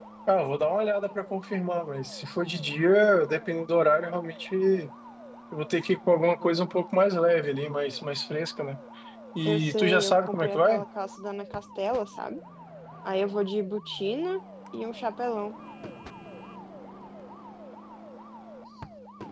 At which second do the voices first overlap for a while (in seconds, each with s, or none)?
9.4 s